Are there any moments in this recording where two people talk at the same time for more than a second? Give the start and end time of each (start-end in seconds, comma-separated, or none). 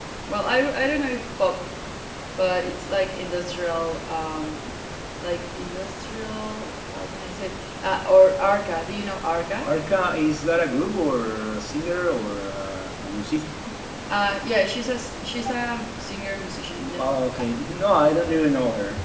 none